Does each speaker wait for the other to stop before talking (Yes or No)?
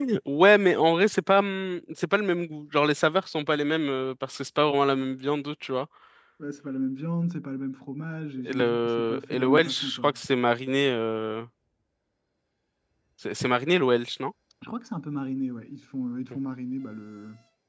No